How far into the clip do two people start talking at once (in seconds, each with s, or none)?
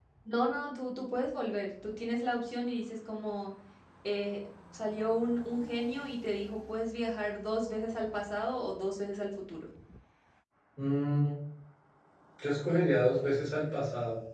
none